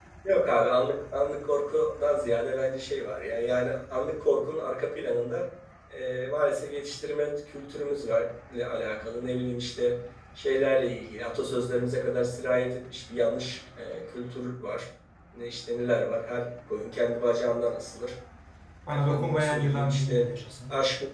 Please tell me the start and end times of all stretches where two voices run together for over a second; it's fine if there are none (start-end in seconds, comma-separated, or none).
18.9-20.3